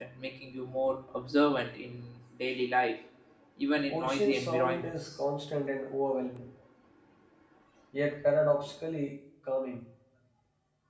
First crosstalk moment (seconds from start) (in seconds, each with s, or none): 3.9 s